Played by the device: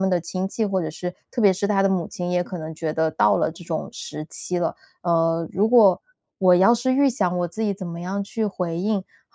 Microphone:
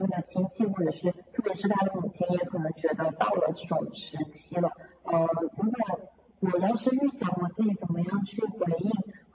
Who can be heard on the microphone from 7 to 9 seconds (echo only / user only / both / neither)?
echo only